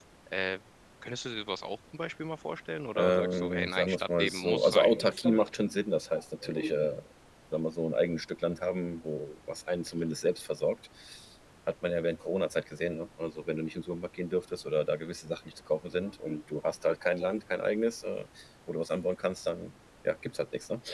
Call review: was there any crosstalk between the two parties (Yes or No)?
Yes